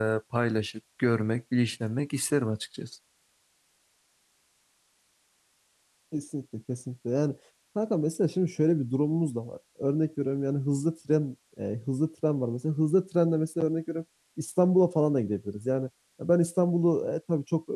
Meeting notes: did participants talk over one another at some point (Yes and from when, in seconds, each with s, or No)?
No